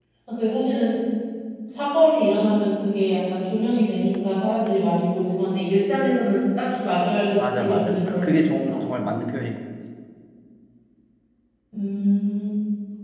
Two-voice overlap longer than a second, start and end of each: 7.4-8.8

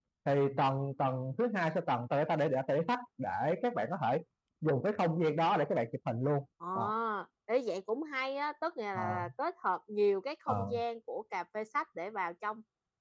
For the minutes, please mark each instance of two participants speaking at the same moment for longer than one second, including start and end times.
none

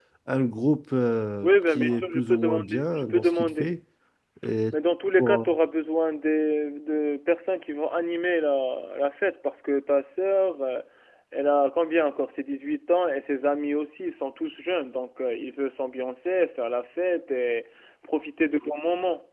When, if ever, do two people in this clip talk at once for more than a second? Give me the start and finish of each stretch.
1.4-3.7

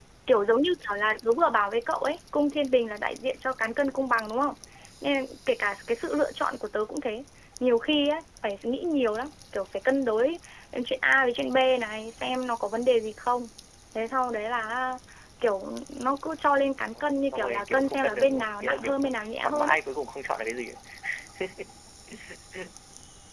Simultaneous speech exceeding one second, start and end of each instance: 16.9-19.8

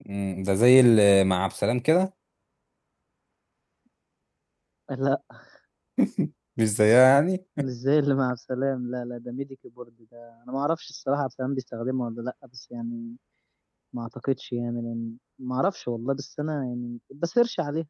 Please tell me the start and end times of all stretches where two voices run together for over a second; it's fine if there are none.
none

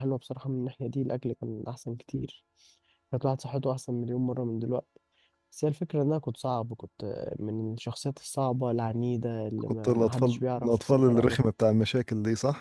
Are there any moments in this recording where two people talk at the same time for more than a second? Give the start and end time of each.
9.8-11.4

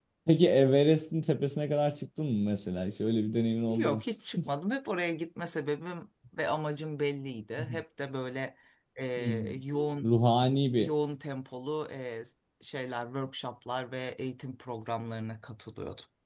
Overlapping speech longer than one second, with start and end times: none

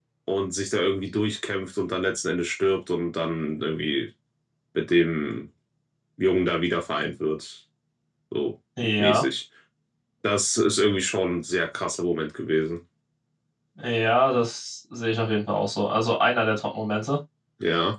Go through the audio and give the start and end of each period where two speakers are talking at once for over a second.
none

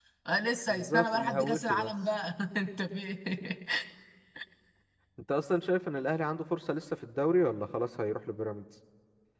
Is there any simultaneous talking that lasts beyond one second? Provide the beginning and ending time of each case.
0.7-1.9

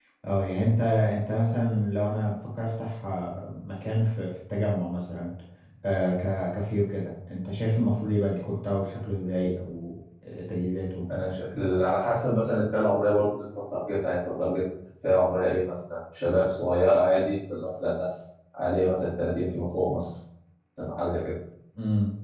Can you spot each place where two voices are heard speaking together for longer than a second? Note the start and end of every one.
none

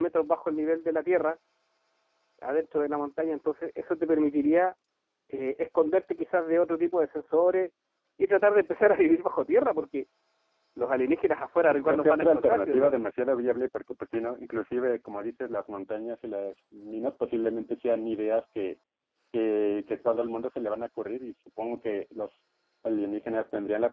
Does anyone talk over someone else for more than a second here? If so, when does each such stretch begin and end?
11.7-12.9

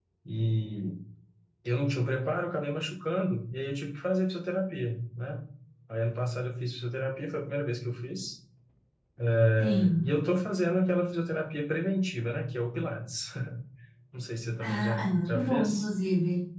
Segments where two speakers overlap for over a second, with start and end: 14.6-15.9

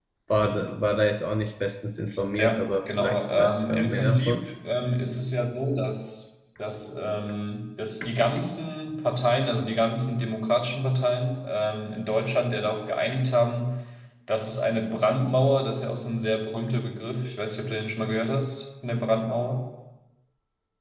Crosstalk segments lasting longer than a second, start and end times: 2.4-4.4

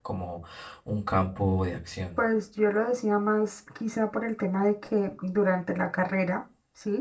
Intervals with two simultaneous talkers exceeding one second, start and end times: none

